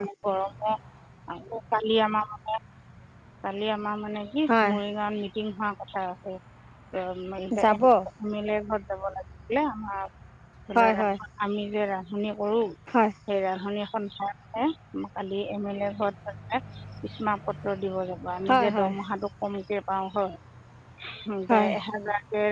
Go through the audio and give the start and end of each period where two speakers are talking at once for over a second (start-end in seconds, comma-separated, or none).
none